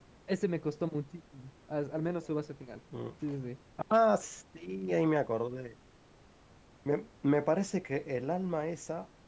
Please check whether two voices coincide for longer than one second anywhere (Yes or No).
No